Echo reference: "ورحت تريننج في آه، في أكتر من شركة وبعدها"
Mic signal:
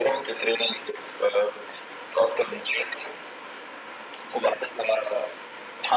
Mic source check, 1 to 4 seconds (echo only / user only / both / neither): echo only